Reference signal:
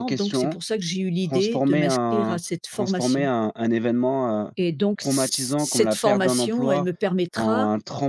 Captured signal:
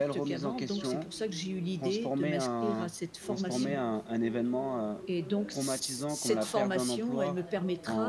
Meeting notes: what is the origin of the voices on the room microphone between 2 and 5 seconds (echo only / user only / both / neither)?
both